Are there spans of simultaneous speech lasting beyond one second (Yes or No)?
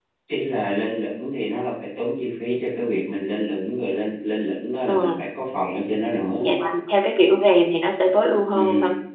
No